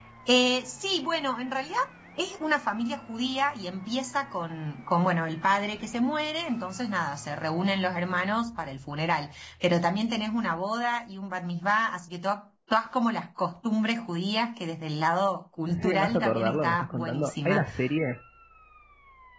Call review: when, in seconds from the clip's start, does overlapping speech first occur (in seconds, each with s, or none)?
15.7 s